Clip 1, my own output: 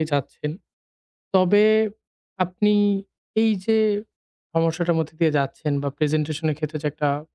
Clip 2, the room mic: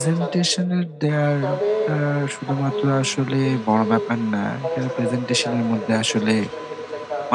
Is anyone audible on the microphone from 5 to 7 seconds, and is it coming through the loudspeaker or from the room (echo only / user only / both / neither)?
both